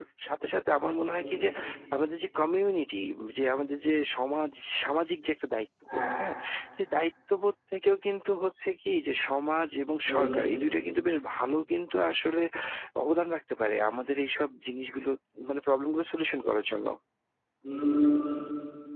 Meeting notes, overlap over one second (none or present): none